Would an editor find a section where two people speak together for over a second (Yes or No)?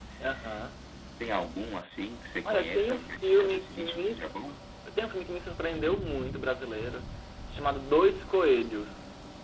Yes